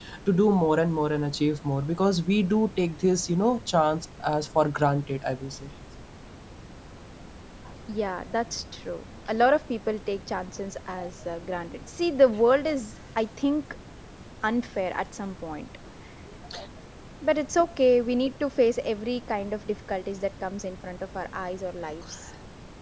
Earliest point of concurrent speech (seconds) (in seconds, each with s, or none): none